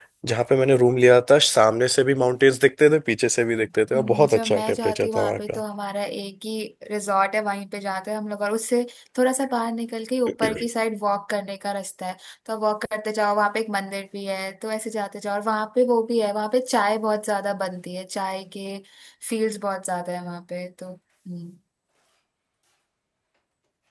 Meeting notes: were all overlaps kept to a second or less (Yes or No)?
No